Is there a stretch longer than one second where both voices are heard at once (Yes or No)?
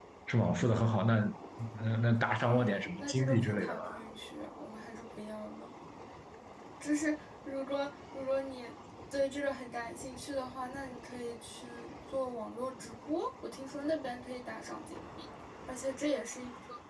Yes